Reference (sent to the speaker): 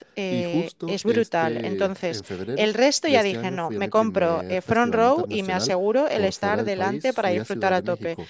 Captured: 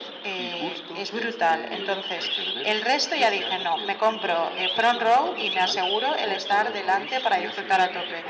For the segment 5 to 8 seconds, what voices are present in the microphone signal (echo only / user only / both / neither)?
echo only